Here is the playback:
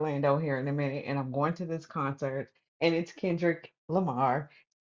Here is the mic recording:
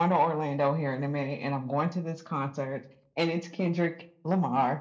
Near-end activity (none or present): none